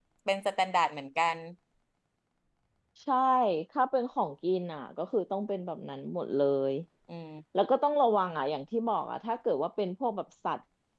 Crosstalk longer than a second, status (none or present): none